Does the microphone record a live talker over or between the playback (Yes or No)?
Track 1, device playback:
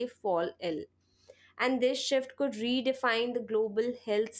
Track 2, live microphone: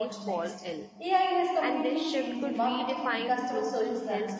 Yes